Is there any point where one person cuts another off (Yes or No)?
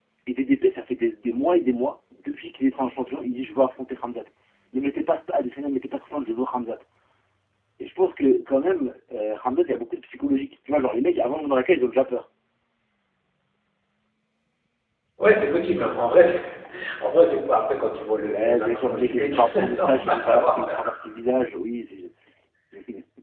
Yes